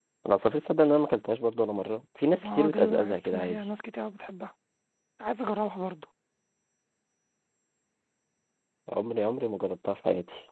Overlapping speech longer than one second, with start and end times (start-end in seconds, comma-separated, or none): 2.4-3.6